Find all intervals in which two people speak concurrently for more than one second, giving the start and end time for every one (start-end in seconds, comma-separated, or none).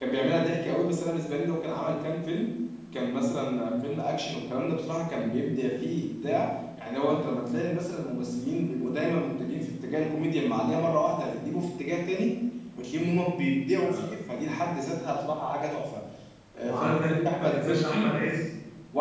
16.7-18.1